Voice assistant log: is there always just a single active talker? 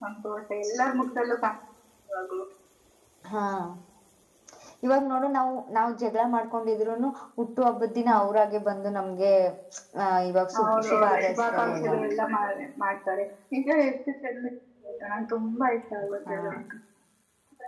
No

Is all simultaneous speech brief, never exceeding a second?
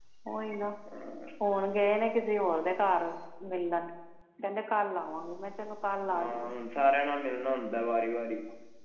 Yes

